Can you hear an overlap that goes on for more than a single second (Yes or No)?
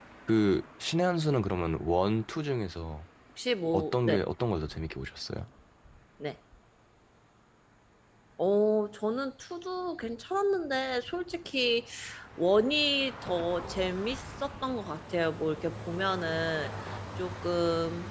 No